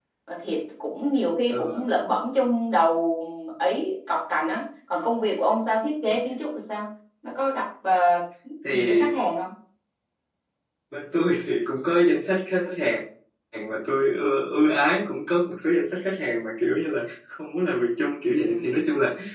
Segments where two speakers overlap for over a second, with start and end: none

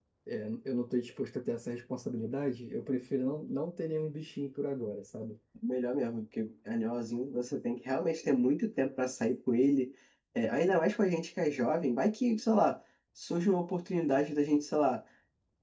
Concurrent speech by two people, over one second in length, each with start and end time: none

